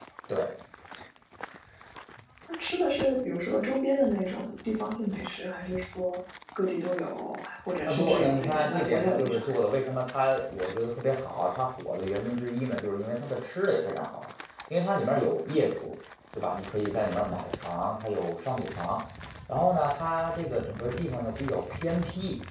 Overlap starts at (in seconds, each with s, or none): 7.9 s